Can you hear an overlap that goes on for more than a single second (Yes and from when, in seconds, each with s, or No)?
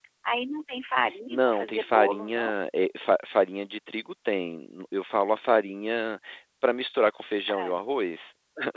Yes, from 1.3 s